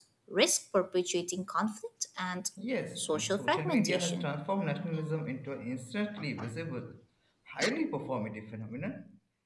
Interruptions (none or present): present